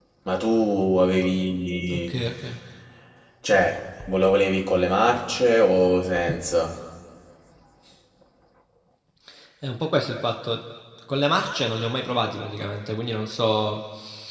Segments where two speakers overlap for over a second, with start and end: none

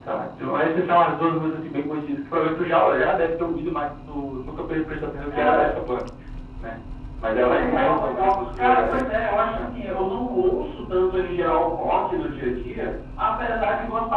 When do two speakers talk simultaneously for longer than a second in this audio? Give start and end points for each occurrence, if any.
7.4-9.0

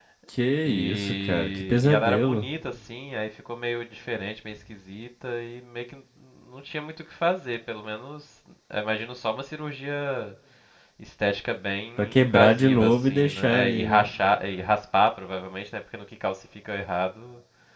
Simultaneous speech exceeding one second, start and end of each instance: 0.7-2.5, 12.0-14.1

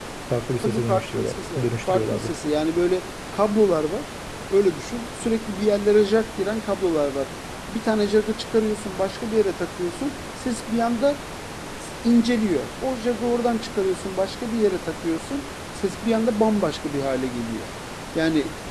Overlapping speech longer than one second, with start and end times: 0.6-2.3

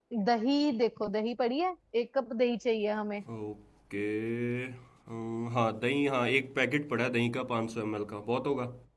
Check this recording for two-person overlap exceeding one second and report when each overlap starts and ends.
none

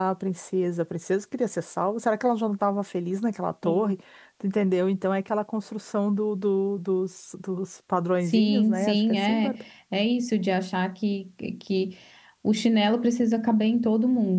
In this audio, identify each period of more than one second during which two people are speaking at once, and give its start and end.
8.2-9.5

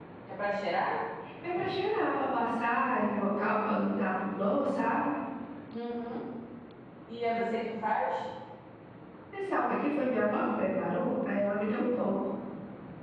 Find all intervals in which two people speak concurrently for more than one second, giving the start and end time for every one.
none

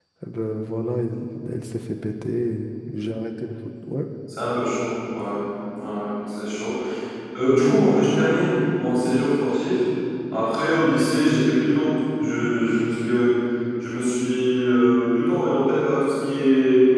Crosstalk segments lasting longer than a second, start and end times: none

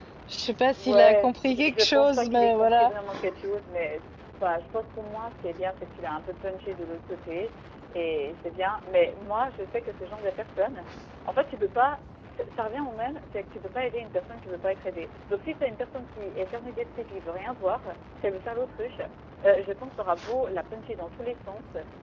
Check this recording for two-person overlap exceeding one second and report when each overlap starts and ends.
0.8-2.9

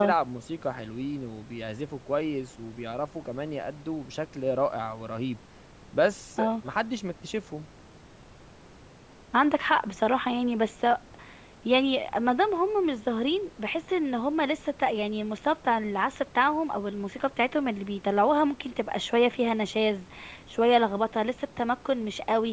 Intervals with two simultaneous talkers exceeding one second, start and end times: none

